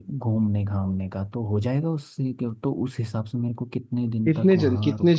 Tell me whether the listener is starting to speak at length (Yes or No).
Yes